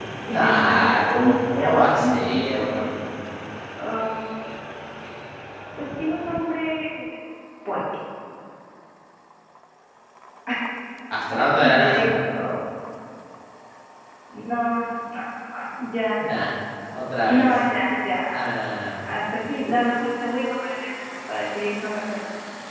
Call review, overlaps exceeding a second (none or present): present